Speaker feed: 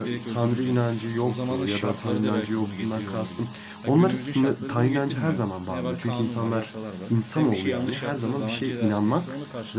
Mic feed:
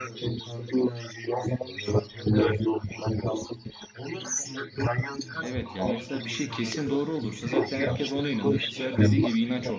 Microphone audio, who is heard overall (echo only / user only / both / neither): both